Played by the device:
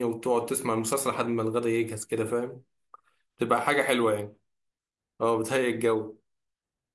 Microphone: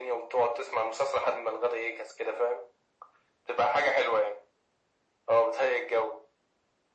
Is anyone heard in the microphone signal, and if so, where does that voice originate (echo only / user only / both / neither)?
echo only